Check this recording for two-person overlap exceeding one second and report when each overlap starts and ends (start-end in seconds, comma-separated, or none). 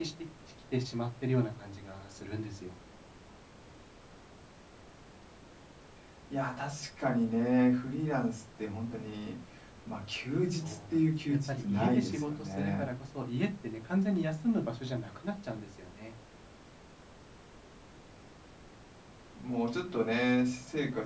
10.6-12.8